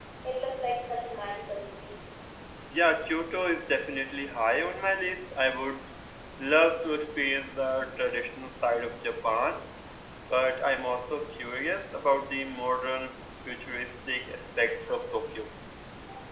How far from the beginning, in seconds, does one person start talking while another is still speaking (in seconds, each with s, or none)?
none